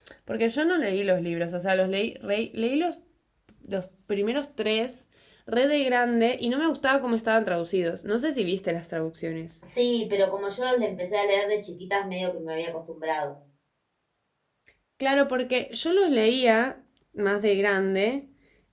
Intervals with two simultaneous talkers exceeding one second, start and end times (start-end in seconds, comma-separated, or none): none